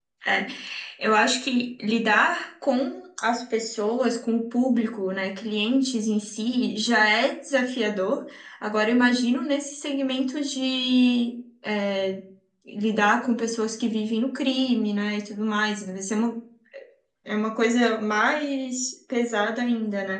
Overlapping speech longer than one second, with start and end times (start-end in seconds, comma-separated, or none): none